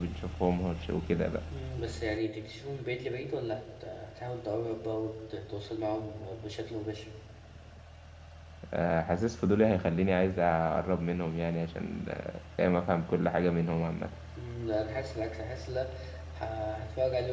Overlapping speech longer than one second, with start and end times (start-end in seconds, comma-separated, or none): none